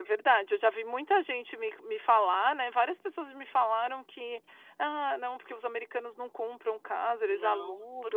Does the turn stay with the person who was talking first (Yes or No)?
No